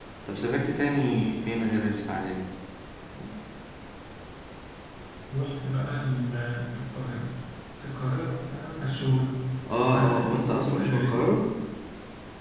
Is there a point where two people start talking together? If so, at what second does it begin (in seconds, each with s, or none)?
9.9 s